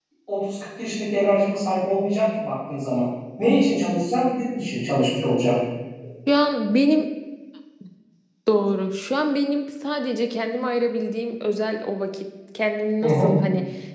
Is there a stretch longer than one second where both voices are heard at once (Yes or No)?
No